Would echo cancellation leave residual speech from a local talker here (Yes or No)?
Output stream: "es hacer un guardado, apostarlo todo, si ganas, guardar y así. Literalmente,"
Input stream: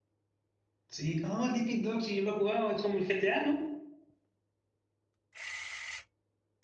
Yes